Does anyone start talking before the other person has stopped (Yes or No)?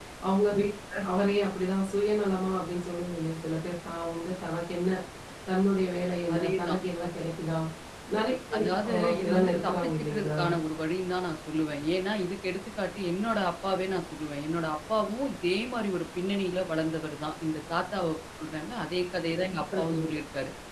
Yes